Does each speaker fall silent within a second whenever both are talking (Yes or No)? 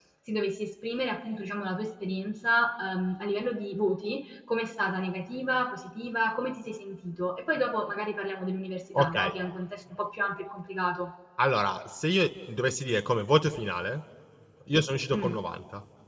Yes